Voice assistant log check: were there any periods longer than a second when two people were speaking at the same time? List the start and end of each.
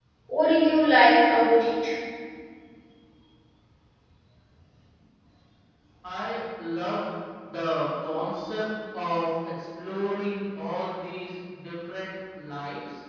none

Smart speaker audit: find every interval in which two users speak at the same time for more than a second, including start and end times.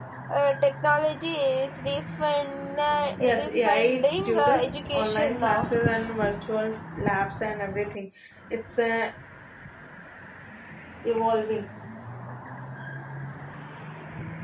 3.2-5.7

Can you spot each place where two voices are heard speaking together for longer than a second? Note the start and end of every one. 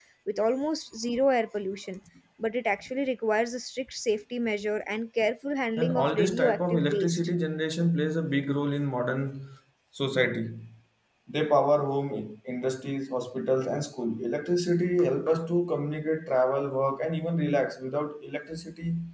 5.8-7.3

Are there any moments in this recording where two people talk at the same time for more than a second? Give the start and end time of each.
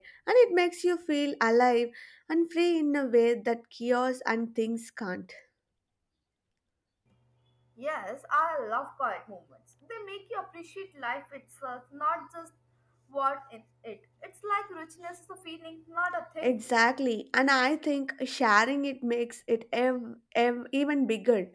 none

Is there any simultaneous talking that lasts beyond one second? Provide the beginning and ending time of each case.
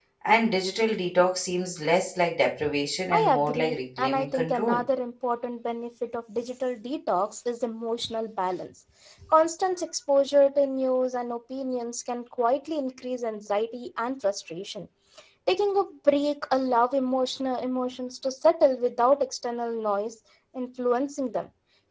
3.1-4.8

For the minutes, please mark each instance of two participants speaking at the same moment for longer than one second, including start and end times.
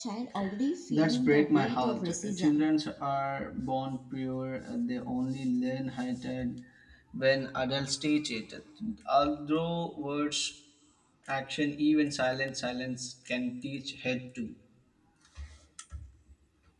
0.9-2.7

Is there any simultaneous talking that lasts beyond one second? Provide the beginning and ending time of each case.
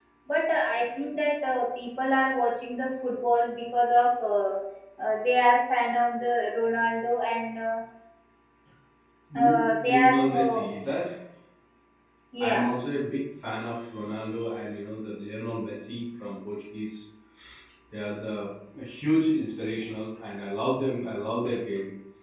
9.4-10.6

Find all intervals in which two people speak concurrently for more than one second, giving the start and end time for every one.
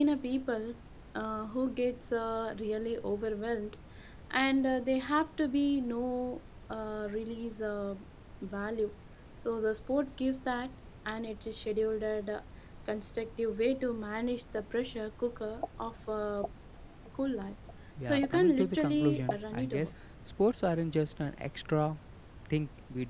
18.1-19.9

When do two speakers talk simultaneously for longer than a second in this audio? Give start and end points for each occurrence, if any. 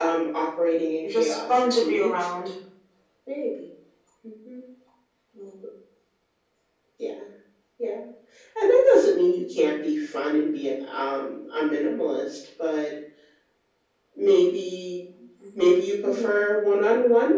1.0-2.3

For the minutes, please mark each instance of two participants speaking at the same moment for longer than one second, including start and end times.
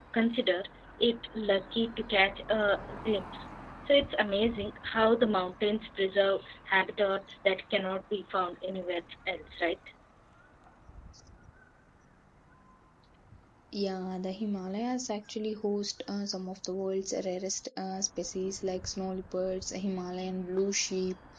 none

